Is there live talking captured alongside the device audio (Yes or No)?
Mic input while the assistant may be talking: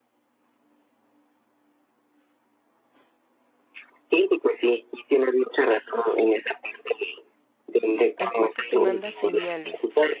Yes